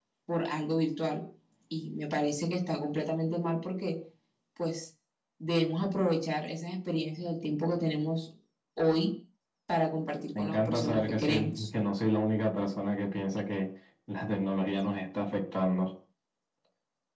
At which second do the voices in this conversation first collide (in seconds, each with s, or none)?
10.3 s